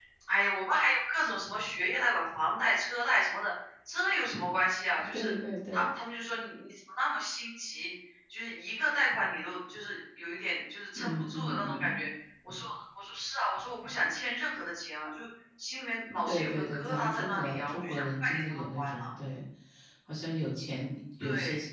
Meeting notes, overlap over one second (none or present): present